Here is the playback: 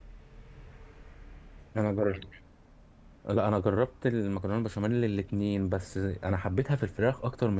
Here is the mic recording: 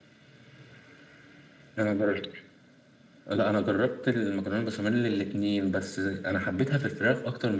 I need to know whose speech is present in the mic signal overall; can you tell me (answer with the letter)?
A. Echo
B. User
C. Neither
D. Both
A